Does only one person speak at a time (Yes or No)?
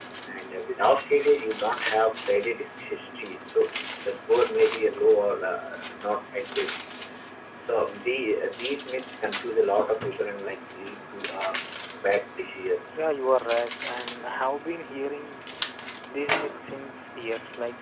Yes